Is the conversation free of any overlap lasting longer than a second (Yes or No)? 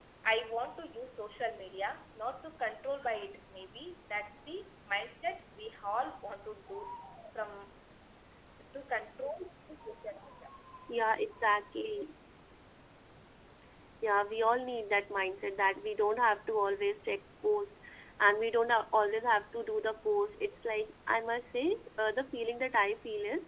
Yes